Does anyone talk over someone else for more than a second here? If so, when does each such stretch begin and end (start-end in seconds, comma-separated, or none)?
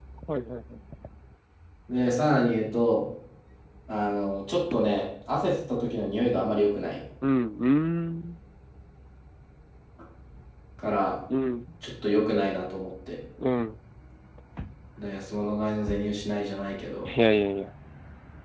none